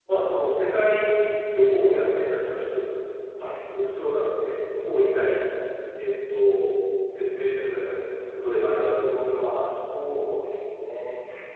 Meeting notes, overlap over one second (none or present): none